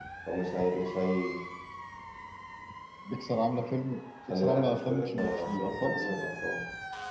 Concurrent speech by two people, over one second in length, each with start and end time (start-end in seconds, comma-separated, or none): 4.3-6.2